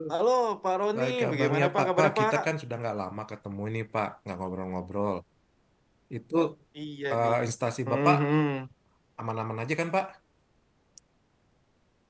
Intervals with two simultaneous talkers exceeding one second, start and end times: 0.9-2.3

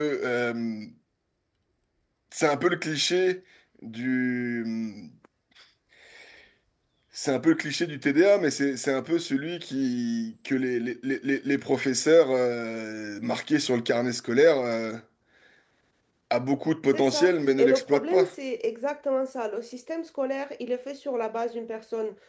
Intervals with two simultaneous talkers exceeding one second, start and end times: 16.9-18.3

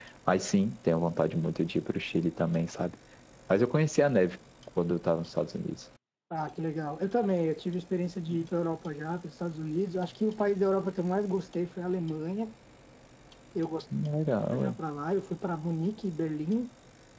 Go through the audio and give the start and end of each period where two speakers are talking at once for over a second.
none

